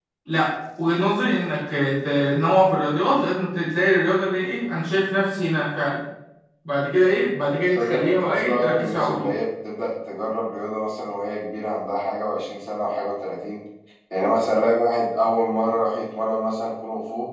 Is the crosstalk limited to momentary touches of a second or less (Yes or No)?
No